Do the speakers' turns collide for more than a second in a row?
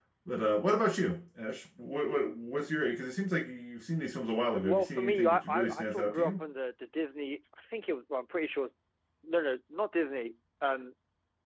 Yes, from 4.6 s

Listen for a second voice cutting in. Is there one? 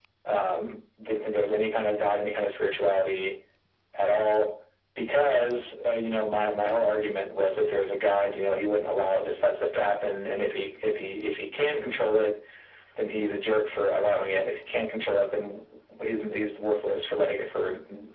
No

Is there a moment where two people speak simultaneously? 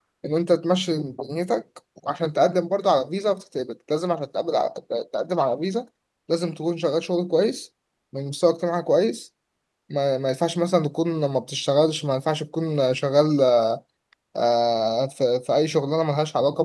No

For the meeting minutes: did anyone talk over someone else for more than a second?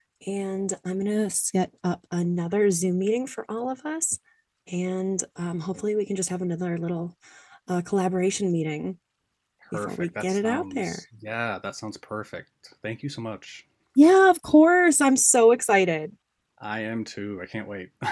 Yes, from 9.7 s

